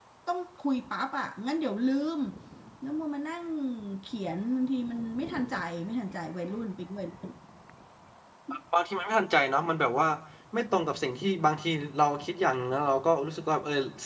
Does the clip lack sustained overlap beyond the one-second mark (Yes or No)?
Yes